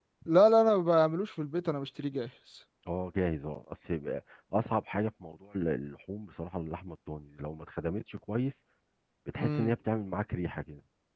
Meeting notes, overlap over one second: none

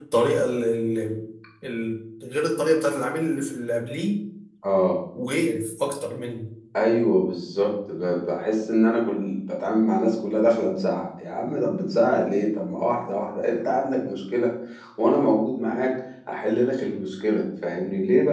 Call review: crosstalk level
none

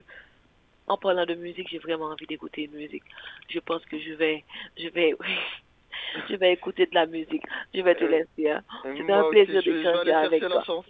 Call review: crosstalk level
present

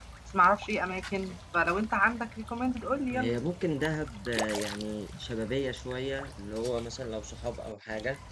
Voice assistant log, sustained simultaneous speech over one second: none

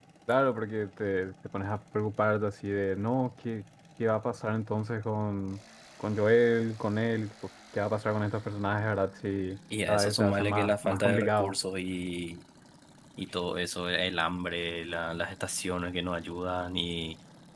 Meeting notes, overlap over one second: present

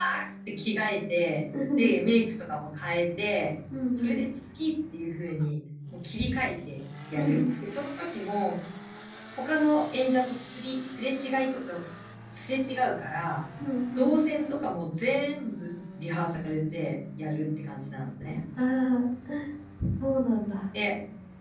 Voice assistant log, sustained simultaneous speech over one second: none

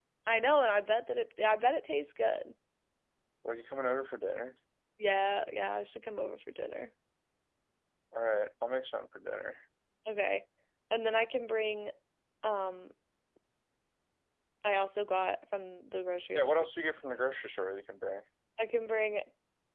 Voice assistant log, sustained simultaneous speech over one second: none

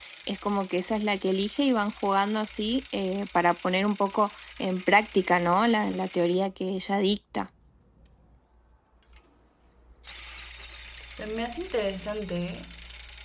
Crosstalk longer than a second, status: none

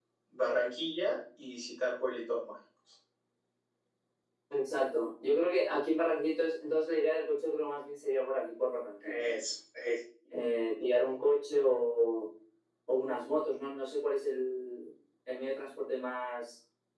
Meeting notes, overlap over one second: none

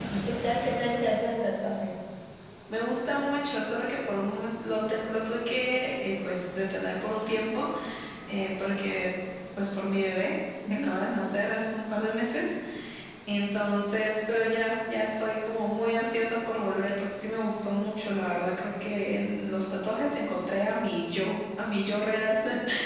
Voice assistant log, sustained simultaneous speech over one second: none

